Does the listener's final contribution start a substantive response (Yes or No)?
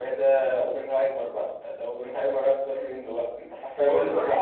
No